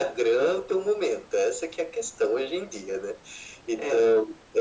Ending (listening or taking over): listening